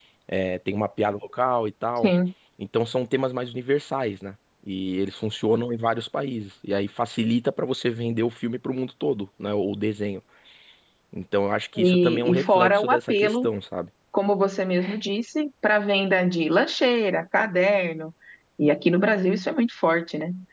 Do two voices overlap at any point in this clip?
Yes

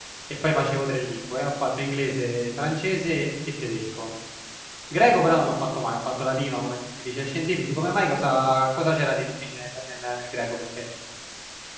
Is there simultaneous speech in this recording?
No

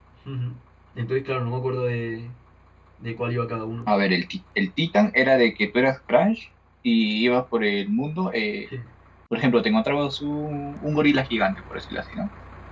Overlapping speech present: No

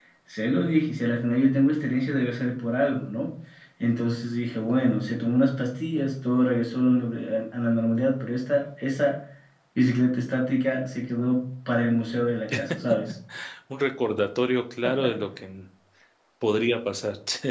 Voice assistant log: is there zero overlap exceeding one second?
Yes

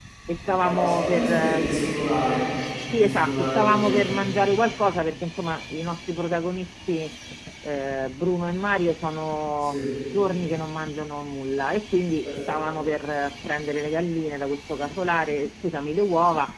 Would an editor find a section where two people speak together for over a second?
Yes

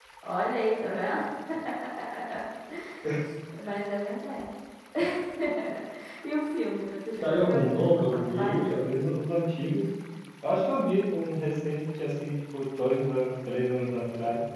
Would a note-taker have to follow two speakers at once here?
Yes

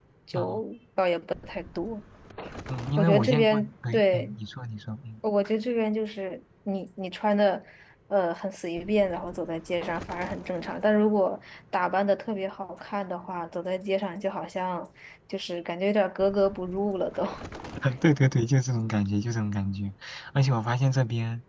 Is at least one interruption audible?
Yes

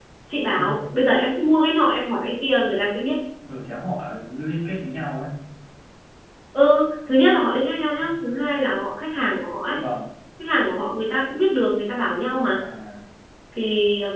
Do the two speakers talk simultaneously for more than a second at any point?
No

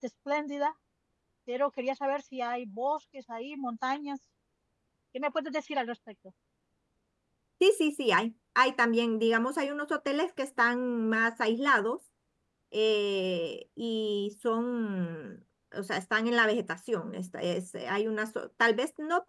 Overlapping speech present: No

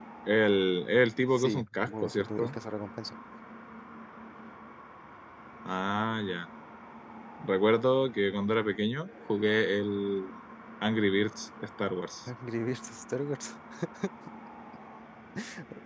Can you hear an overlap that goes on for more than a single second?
Yes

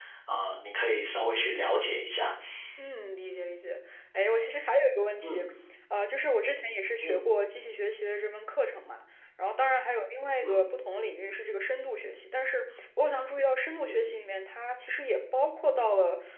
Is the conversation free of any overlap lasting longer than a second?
Yes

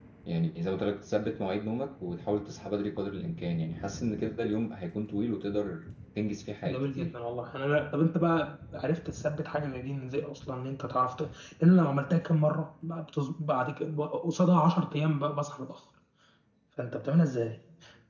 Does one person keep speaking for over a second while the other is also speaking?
No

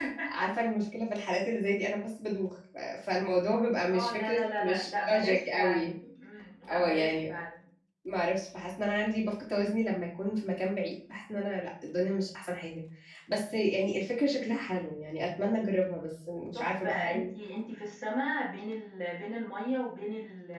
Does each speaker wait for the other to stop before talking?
No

